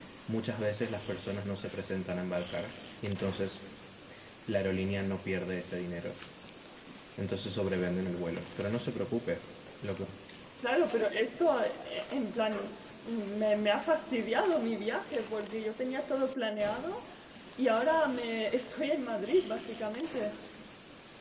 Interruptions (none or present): none